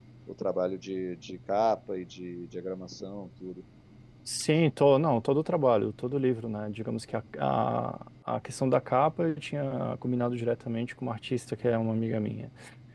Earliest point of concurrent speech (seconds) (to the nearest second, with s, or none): none